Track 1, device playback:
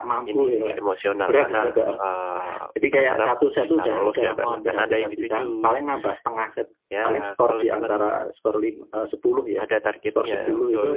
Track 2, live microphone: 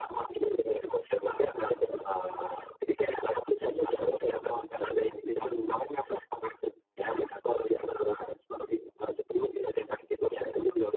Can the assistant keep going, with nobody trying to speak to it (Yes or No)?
Yes